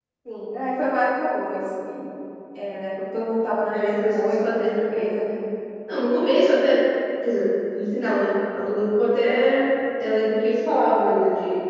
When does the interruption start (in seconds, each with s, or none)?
3.7 s